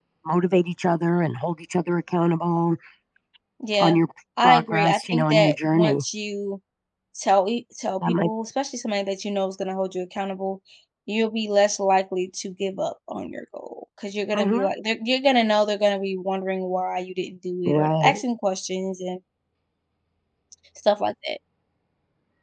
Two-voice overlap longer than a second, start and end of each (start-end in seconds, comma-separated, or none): 4.4-6.0